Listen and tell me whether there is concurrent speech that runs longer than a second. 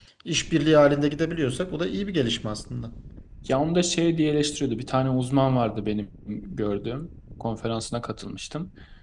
No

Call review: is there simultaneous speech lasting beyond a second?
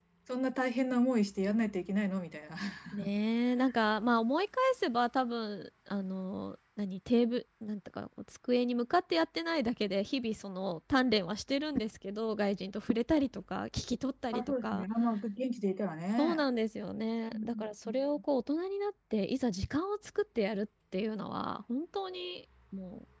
No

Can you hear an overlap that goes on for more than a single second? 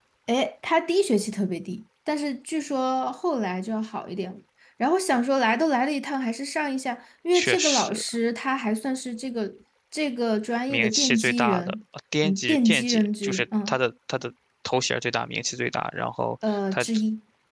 Yes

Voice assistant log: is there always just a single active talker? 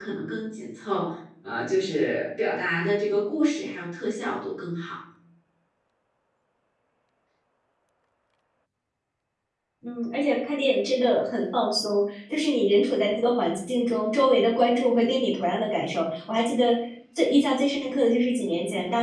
Yes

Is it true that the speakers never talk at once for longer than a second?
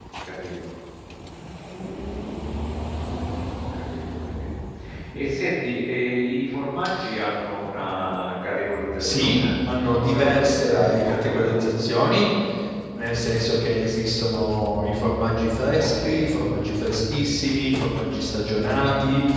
No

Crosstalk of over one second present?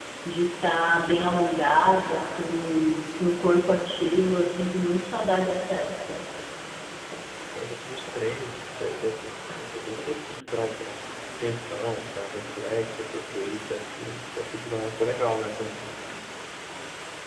No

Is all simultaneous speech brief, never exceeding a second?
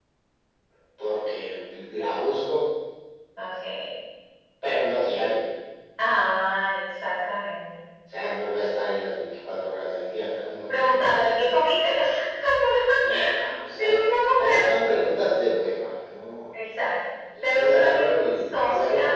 No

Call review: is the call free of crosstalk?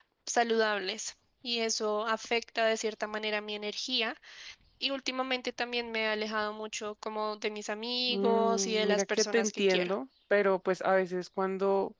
No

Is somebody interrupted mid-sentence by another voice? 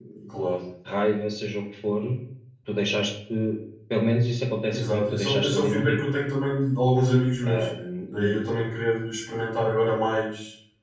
Yes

